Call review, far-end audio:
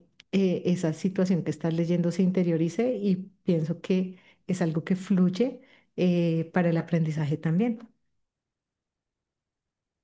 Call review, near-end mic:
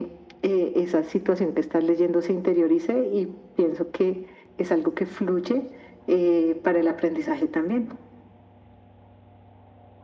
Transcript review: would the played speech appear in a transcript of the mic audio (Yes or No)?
Yes